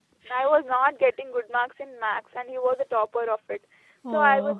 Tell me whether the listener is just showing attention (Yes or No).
Yes